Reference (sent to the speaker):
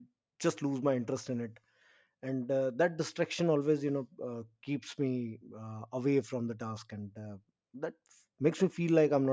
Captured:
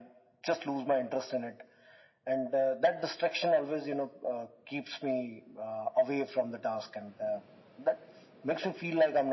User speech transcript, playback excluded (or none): none